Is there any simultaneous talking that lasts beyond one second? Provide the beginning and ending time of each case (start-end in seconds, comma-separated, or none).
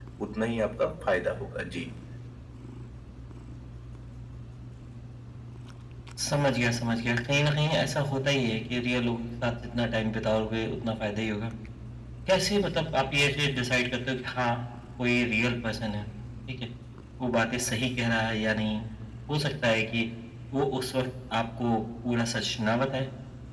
none